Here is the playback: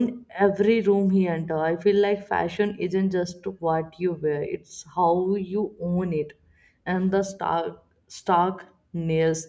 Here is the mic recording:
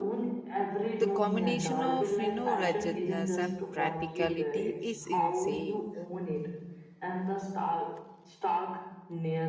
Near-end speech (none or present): present